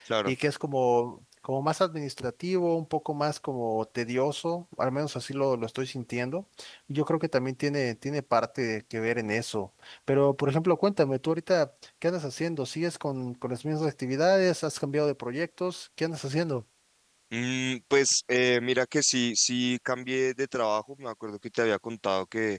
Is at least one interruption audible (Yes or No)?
No